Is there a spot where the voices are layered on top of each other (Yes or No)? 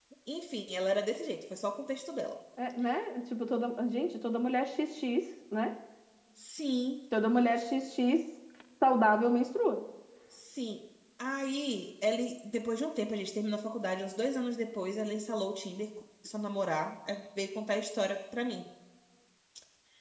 No